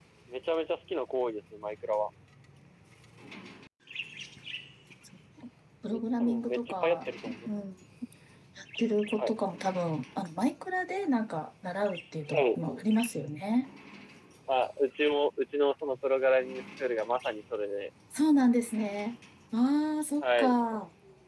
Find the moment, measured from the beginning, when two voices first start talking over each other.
5.9 s

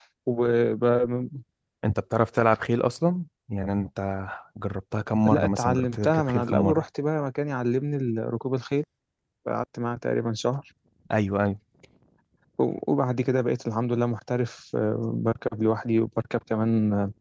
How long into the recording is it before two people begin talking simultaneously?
5.2 s

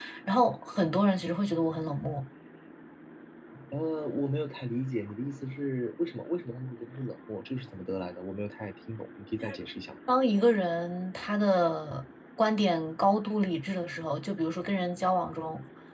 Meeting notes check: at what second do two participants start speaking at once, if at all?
none

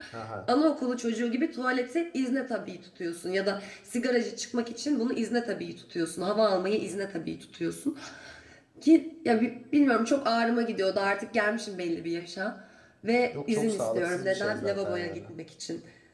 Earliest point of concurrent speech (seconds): 13.5 s

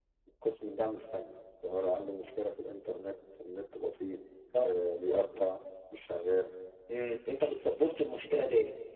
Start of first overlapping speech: none

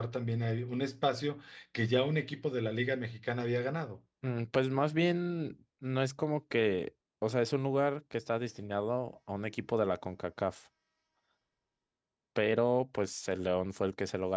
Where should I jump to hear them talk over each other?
none

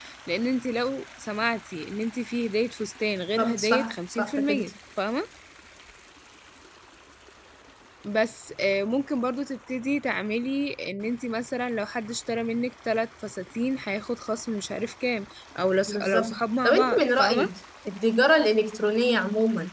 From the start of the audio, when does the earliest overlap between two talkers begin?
3.4 s

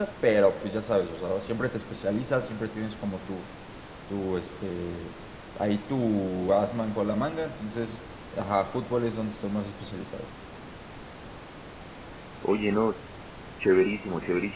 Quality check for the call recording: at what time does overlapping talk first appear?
none

